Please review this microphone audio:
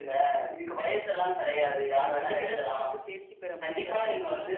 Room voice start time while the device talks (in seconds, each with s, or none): 2.0 s